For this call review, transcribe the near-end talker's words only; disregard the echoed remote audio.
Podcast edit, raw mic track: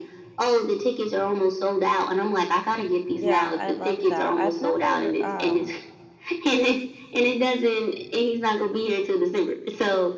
Yeah, I love that. I've never, um,

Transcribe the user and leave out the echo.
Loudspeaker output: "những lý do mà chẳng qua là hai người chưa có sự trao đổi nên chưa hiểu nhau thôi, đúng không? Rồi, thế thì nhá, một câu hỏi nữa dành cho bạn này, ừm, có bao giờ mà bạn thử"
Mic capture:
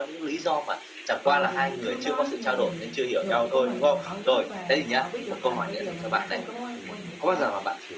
Ờ, thì trước đó nha, thì người bạn của mình thì họ rất là họ biết được là bây giờ mình đang có một cái mối quan quan hệ khác,

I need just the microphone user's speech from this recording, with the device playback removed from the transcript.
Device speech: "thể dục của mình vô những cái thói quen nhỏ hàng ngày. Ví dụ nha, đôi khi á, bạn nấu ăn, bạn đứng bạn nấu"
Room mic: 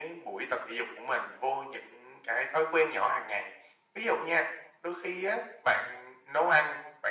none

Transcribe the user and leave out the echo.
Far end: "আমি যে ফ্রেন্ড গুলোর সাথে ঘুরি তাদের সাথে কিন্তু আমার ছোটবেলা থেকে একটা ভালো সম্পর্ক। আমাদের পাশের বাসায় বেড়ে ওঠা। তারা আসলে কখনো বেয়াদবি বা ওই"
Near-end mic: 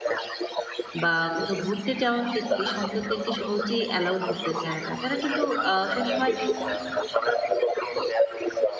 বা কোথাও ঘুরতে যাওয়ার ক্ষেত্রে সন্তানদেরকে সহজেই অ্যালাও করতে চায় না। তারা কিন্তু আ সবসময়

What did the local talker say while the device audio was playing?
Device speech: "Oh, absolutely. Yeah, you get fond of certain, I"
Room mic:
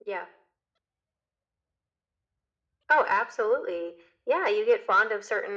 none

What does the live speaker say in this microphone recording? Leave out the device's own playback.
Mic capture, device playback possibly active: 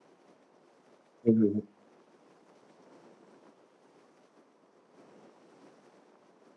হু, হু, হু।

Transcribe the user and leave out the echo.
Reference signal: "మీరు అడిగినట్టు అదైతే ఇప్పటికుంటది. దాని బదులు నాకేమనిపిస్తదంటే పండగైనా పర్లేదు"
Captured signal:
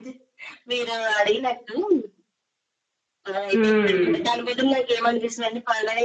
హ్మ్.

